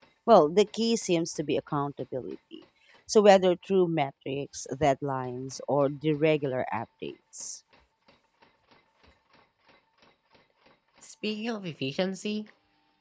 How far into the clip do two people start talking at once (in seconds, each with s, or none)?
none